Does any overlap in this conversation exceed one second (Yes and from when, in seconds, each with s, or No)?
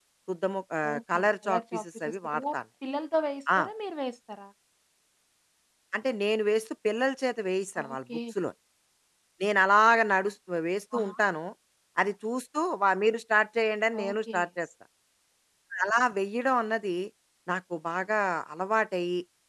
Yes, from 0.9 s